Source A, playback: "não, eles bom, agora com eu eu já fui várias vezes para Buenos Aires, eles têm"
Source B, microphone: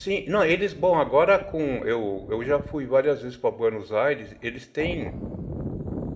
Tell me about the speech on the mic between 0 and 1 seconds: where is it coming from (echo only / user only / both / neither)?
echo only